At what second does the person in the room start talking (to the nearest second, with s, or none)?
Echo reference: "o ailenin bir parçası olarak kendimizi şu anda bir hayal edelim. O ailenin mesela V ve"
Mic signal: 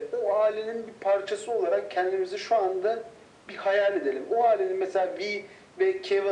none